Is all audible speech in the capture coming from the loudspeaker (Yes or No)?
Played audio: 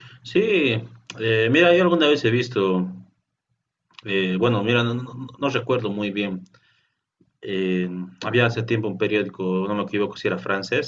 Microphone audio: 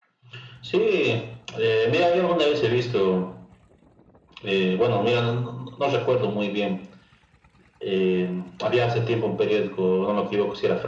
Yes